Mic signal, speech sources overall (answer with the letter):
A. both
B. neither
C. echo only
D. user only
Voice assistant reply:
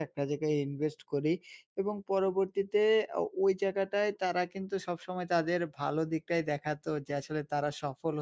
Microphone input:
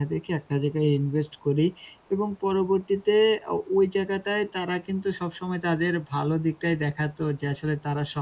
C